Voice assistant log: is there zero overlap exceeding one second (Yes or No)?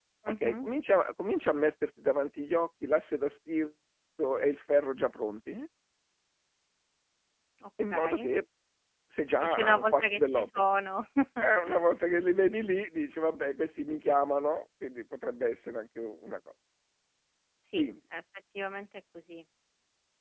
No